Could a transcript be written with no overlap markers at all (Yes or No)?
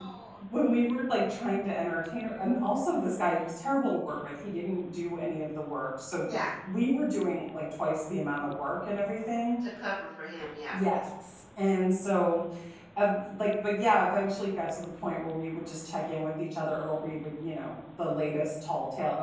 Yes